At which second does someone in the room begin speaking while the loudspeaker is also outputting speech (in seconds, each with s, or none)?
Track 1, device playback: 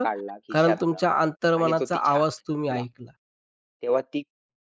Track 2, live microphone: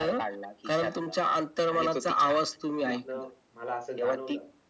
2.9 s